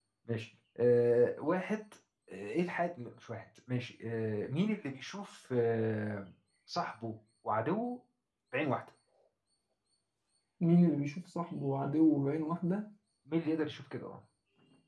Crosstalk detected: No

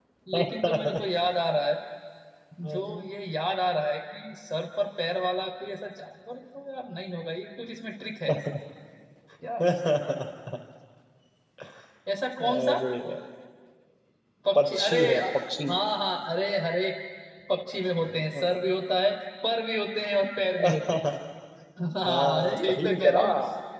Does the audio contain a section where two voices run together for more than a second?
Yes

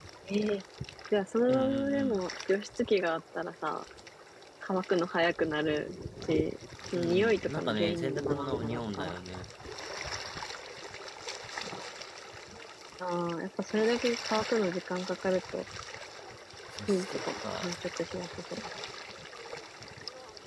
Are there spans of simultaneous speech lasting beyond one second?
Yes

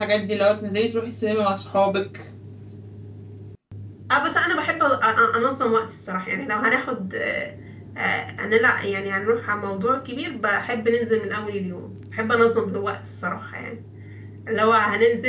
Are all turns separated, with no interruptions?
Yes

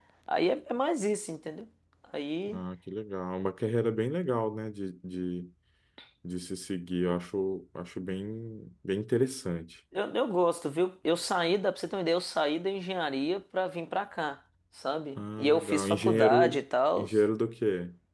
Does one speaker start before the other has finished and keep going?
Yes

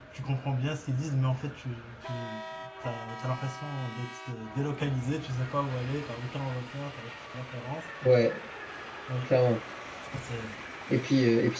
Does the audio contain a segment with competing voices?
No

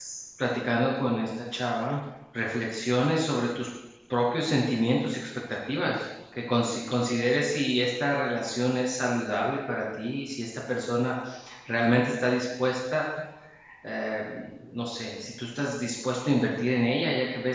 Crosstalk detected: No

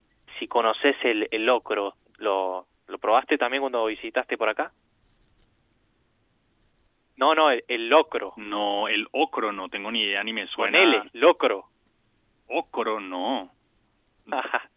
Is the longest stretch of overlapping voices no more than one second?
Yes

